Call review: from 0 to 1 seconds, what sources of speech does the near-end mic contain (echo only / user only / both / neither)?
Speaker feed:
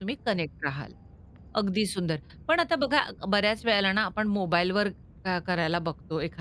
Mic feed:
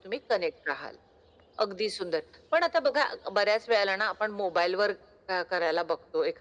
echo only